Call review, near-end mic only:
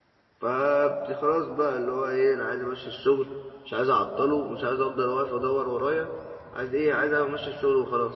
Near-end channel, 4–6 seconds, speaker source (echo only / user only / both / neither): user only